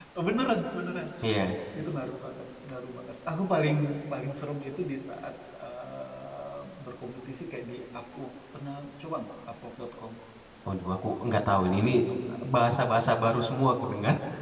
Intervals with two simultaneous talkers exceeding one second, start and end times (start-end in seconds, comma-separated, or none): none